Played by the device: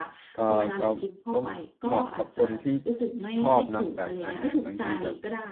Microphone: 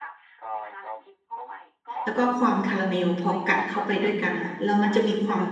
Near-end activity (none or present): present